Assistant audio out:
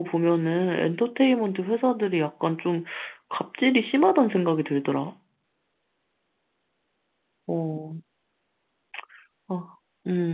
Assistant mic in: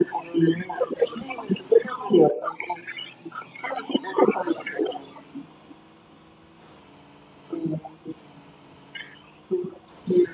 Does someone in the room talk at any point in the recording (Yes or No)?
No